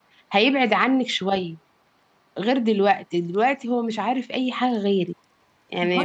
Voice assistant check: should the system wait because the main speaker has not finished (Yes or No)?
No